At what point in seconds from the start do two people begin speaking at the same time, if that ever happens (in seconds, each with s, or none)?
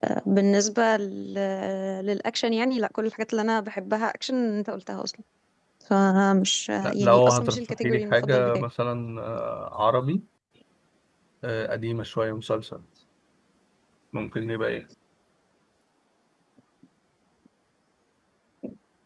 6.8 s